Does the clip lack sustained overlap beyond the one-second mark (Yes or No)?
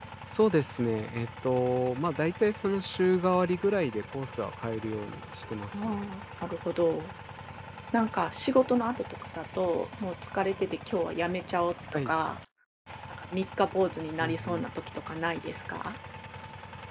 Yes